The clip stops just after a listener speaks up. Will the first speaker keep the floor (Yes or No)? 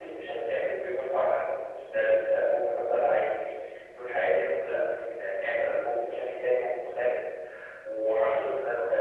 Yes